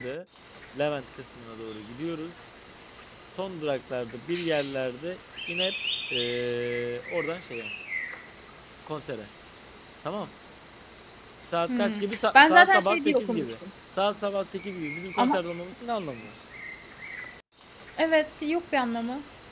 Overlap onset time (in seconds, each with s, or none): 11.8 s